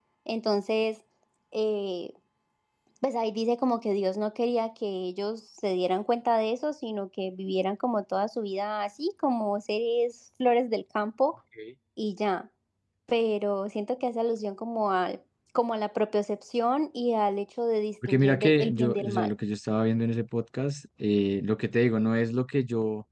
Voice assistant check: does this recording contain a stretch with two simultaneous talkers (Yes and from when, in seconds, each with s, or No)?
Yes, from 18.0 s